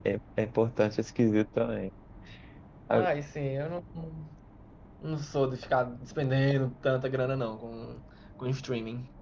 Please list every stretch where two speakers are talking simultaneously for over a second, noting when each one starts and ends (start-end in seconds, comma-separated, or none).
none